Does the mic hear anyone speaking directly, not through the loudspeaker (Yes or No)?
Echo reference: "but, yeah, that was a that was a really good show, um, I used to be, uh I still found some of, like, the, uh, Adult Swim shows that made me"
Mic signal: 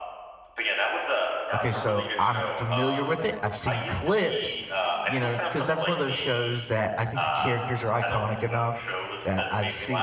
Yes